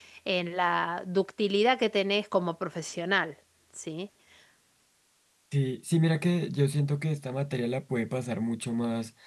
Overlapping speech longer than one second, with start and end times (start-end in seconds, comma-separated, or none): none